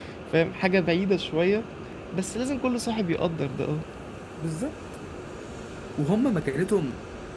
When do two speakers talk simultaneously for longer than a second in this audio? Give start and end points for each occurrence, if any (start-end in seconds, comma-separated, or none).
none